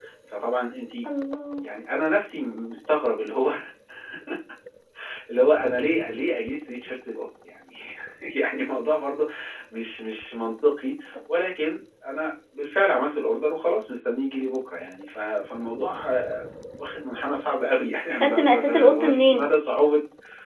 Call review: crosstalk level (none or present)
present